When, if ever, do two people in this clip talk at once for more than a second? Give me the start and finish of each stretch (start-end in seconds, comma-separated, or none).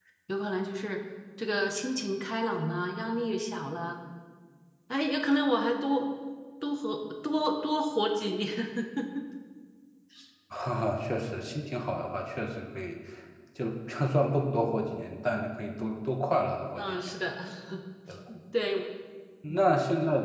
none